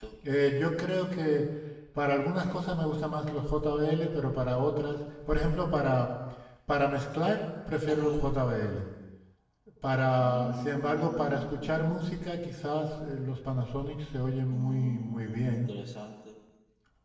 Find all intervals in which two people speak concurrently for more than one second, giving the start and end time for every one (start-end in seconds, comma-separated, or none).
10.2-11.9, 14.5-15.7